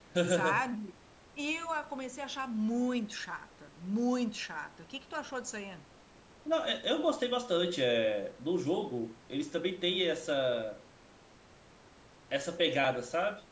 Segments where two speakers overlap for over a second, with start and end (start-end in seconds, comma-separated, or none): none